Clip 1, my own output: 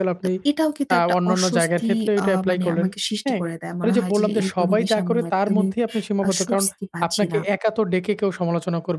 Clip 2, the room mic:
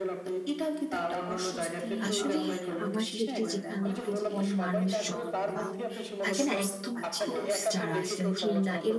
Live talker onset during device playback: 2.1 s

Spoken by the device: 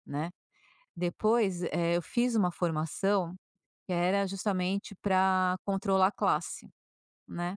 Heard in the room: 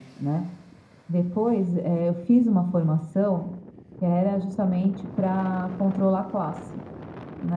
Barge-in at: none

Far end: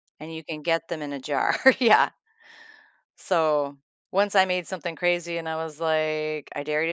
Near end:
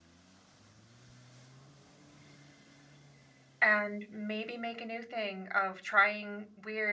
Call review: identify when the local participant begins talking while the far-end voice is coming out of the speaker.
3.6 s

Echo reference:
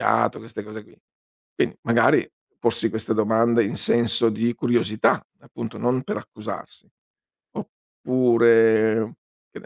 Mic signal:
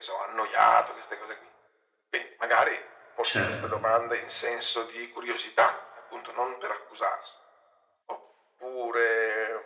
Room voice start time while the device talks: 3.2 s

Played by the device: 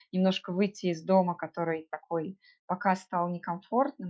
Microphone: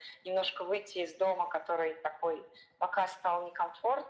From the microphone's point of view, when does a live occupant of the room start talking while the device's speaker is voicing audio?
none

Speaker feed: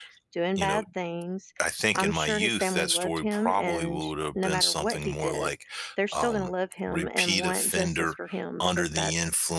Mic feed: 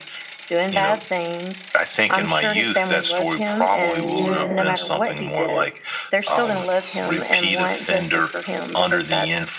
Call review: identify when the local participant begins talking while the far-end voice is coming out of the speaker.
4.0 s

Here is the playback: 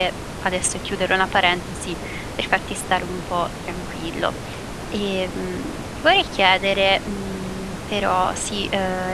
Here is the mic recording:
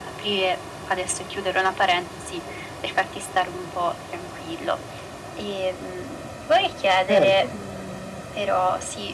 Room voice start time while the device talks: 7.1 s

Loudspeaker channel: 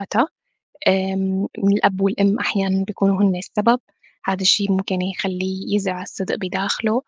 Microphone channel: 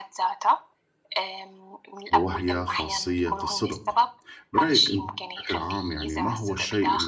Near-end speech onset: 2.1 s

